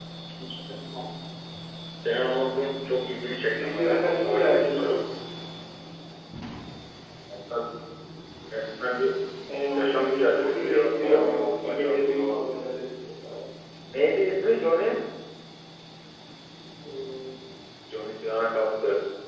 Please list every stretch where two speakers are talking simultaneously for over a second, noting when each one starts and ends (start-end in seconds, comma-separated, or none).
3.5-5.0, 9.7-12.4